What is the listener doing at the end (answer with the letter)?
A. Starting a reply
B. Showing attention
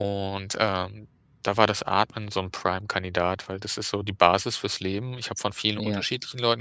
B